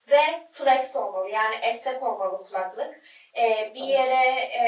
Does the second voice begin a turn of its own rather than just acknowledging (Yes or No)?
No